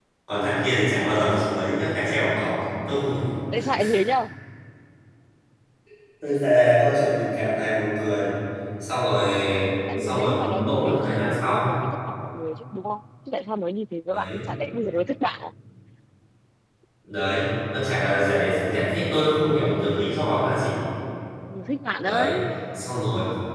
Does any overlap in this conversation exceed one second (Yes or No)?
Yes